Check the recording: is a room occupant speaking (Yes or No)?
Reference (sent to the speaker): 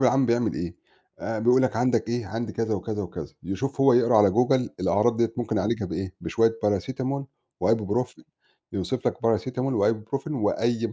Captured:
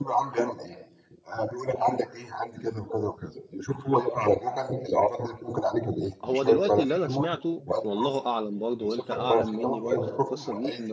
Yes